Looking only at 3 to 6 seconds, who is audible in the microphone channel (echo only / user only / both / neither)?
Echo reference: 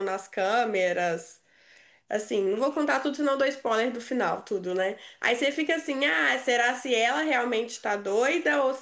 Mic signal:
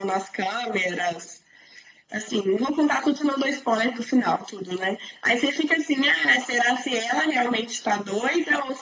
echo only